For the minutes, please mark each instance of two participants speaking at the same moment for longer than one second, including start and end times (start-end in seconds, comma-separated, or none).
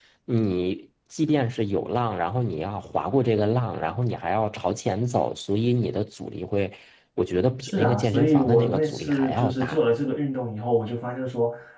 7.6-9.9